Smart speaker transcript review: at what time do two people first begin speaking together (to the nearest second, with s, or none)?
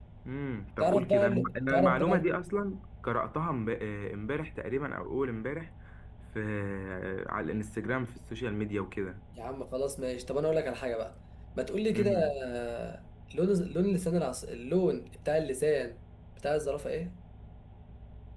1 s